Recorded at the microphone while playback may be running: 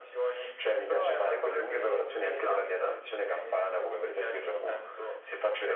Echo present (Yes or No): Yes